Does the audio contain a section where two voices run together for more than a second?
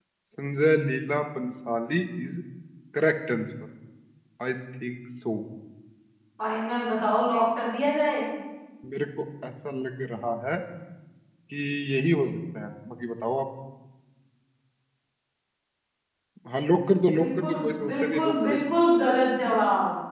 Yes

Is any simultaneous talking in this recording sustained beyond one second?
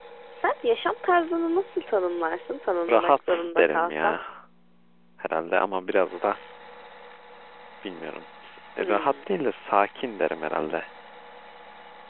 Yes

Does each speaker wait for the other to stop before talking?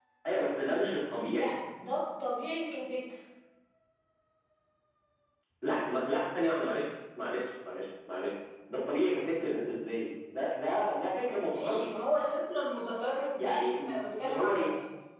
No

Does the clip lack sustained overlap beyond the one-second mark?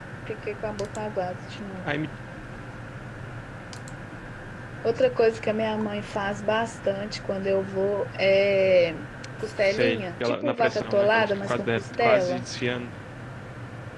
No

